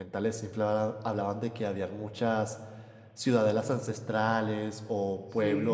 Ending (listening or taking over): listening